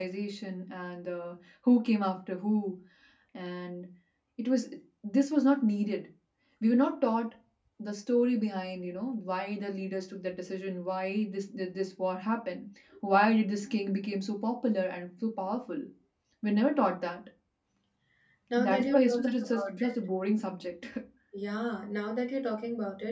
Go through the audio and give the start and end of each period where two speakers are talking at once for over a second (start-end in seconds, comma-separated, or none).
18.6-19.9